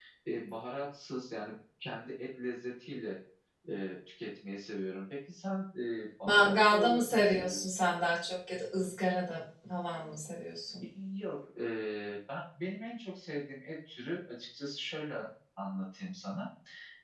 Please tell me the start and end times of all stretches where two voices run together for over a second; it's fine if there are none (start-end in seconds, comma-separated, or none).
6.2-7.8